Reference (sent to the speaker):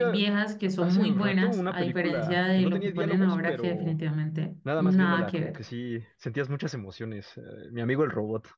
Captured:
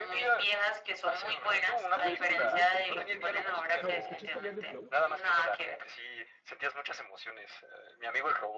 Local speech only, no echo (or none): todavía salen algunas películas buenas, ¿no? Ah, ¿Escuchaste hablar de Flow?